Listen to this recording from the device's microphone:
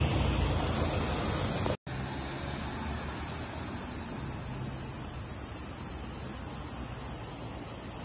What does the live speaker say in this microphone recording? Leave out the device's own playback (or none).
none